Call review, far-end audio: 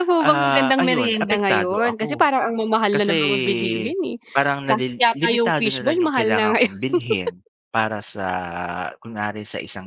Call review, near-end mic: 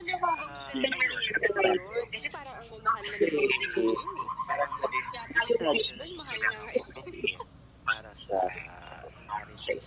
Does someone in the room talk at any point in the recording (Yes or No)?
No